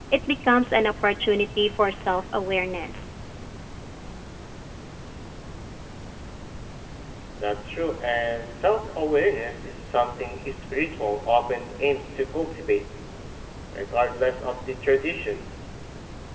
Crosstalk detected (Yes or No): No